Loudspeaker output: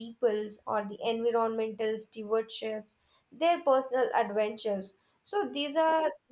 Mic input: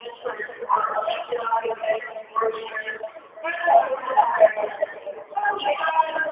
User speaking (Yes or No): No